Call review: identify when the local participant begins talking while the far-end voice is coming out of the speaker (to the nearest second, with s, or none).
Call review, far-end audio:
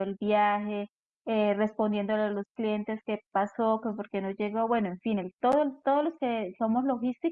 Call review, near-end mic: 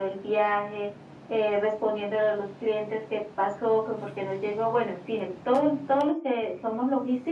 none